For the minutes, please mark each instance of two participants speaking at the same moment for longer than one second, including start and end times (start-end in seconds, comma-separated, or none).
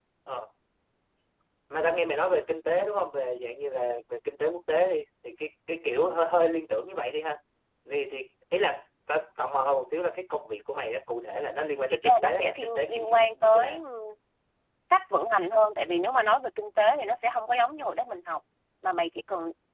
11.9-13.8